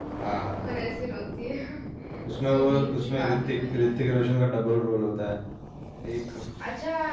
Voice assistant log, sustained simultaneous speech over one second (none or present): present